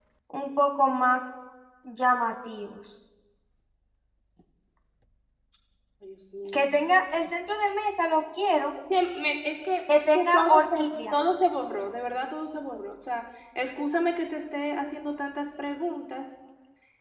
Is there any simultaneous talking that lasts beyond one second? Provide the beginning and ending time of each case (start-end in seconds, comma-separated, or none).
9.9-11.2